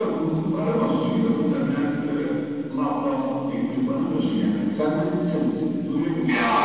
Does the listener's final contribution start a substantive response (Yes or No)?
Yes